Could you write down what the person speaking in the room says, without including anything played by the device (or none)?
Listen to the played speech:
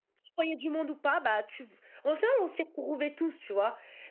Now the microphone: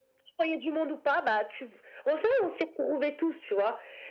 none